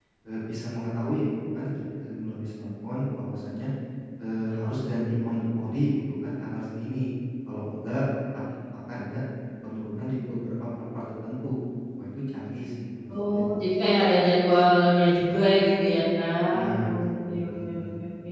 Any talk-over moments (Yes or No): Yes